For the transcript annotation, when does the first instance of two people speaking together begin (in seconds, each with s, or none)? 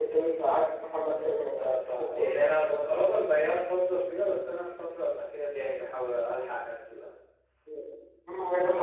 1.6 s